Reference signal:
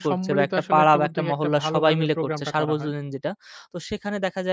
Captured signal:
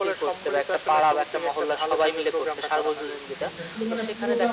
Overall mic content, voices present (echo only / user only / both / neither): both